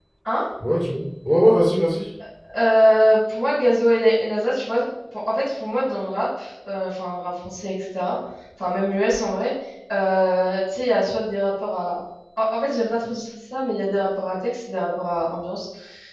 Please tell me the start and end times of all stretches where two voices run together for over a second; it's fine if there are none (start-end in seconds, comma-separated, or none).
none